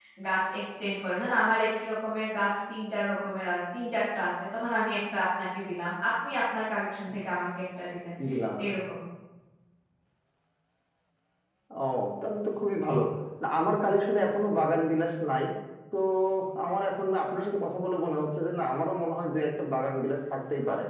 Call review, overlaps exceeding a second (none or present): none